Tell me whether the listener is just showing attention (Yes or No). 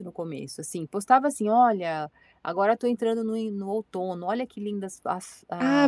No